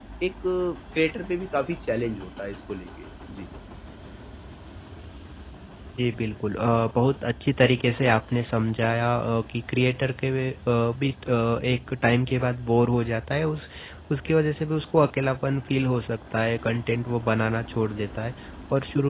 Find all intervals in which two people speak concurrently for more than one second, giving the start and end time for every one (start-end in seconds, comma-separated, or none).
none